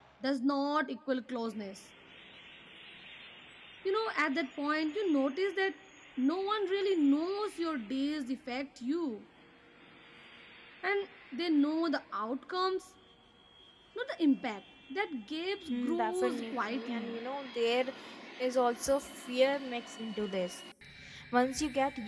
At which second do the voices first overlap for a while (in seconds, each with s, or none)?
15.7 s